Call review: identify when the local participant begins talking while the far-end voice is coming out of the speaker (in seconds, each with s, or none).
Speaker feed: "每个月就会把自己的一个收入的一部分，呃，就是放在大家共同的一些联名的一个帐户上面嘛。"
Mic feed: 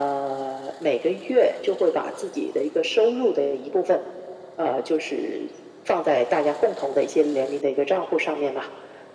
none